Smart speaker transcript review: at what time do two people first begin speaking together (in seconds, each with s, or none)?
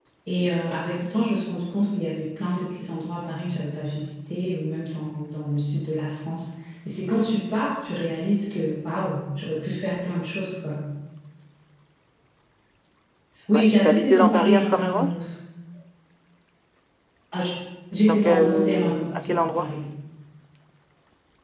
13.6 s